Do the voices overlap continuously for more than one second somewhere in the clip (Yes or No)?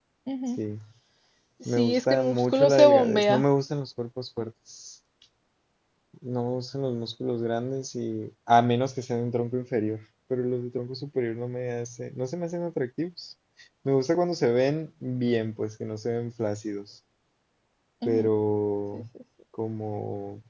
Yes